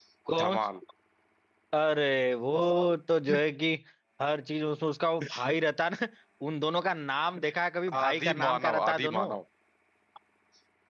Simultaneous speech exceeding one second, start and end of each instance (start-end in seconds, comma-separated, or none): 8.0-9.3